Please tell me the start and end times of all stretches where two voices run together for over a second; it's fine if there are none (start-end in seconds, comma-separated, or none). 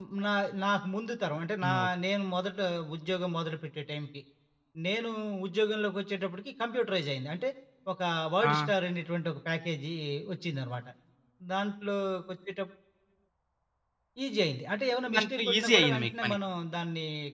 15.1-16.4